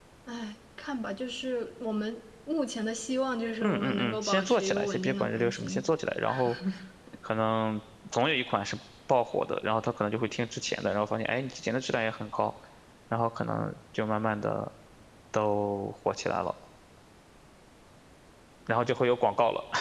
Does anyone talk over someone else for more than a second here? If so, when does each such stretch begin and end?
3.6-5.8

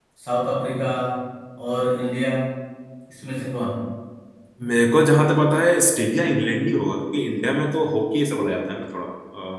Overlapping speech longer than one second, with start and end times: none

